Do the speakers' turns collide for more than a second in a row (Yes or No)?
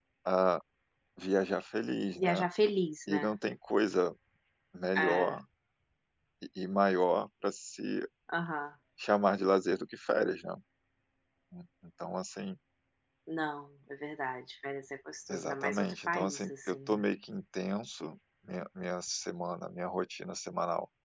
Yes